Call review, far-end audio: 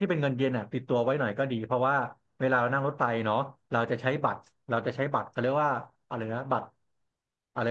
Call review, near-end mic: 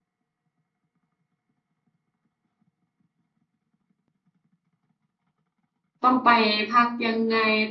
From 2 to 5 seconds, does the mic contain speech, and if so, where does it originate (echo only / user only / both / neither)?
neither